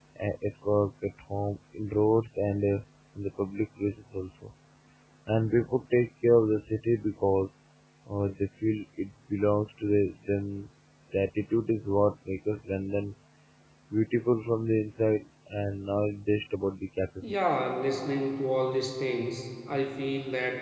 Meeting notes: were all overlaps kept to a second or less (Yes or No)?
Yes